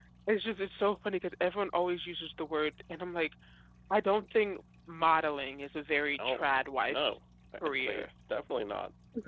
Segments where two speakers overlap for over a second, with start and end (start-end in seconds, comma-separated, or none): none